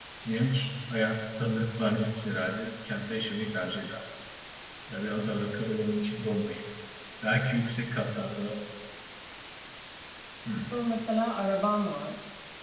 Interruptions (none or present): none